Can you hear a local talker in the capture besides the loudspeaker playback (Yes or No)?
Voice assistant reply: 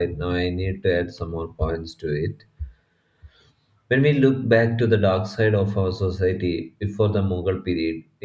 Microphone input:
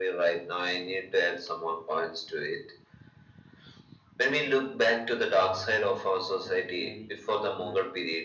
Yes